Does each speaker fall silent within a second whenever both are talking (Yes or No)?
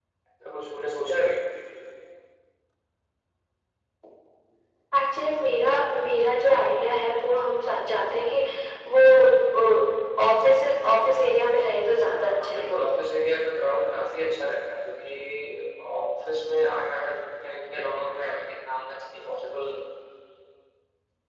Yes